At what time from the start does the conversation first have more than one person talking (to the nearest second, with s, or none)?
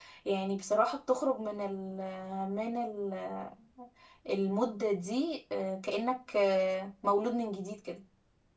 none